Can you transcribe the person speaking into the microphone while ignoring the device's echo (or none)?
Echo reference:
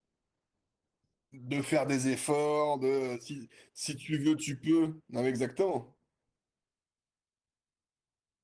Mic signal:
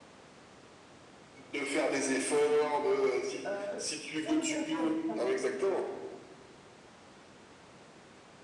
Euh, je trouve très intéressant les différences.